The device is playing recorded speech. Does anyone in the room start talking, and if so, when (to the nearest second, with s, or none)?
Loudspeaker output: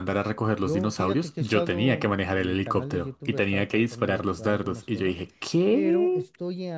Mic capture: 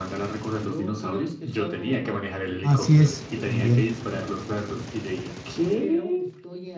3 s